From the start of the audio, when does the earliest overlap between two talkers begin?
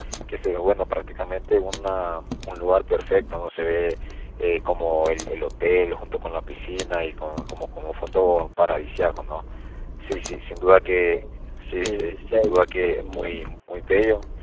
11.8 s

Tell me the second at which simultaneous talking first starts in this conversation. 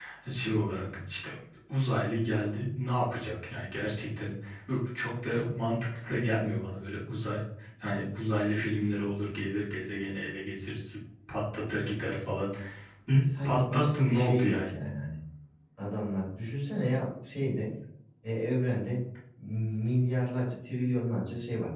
13.4 s

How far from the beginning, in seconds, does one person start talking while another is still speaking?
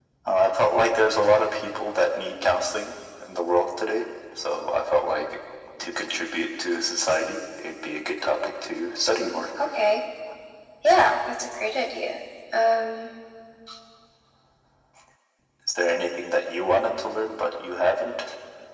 none

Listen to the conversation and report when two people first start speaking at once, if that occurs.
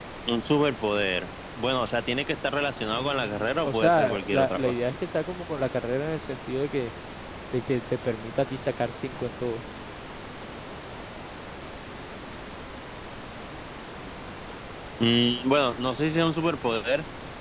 2.9 s

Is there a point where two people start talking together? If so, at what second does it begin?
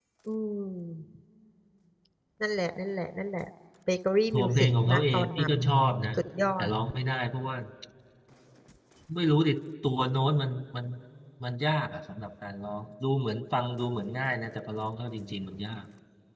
4.3 s

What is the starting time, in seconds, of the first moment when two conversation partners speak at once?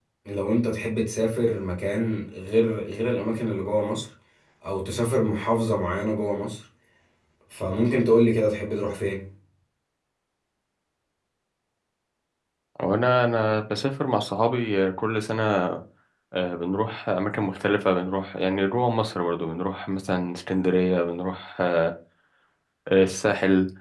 none

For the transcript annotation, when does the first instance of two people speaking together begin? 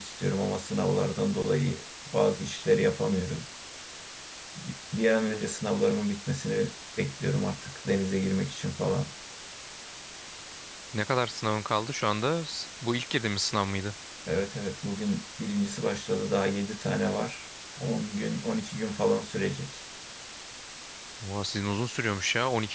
none

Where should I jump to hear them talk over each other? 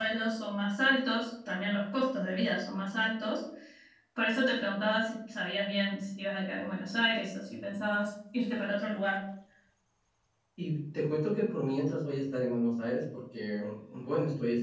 none

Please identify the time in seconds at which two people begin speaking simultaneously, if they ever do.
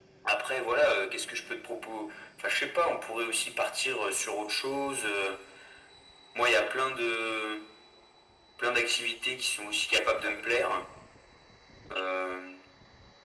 none

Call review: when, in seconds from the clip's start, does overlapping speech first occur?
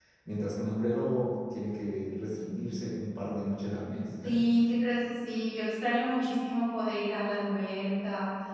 none

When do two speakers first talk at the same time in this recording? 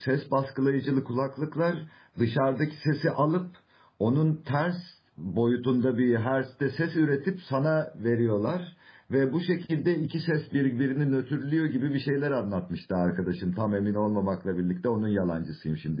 none

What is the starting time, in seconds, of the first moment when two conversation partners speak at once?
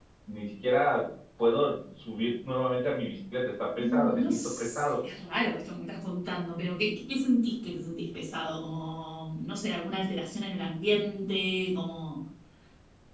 3.8 s

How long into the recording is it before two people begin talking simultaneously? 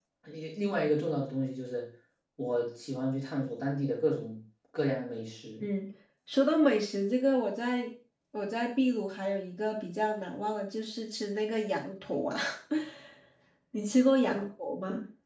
none

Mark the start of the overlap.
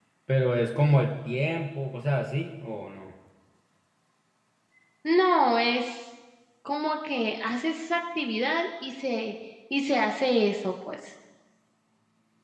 none

